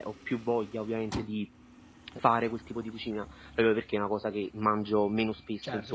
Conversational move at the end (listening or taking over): taking over